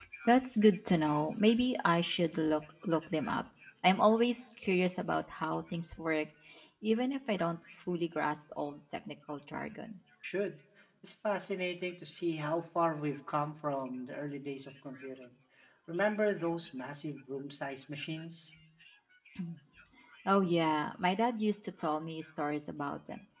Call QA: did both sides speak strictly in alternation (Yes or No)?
Yes